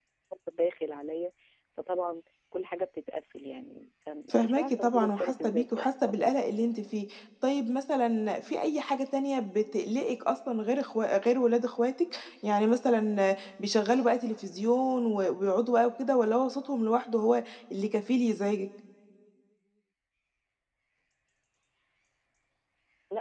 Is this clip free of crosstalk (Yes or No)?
No